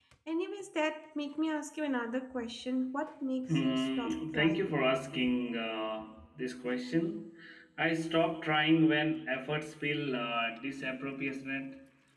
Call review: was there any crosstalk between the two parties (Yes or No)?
Yes